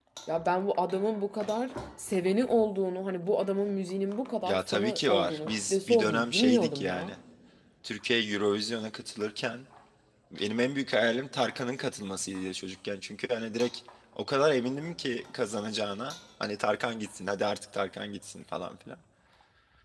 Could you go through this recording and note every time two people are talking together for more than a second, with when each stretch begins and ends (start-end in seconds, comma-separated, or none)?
4.5-7.1